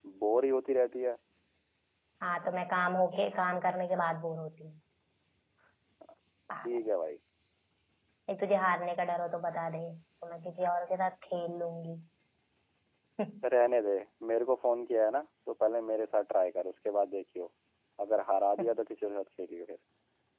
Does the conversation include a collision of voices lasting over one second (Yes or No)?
No